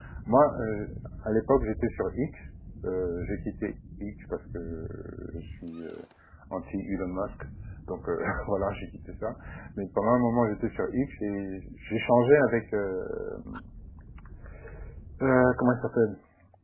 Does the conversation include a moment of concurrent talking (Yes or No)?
No